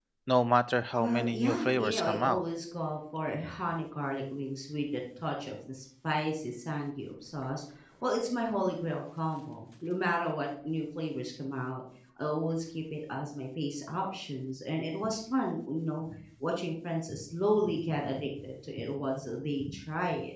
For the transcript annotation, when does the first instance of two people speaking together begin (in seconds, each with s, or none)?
1.0 s